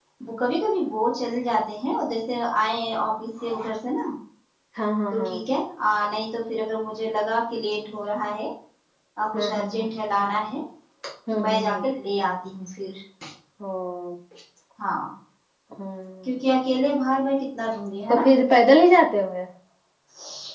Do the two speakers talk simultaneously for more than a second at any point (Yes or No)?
No